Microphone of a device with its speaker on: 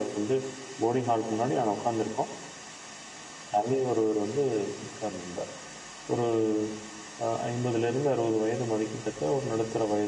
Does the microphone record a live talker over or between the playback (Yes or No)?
No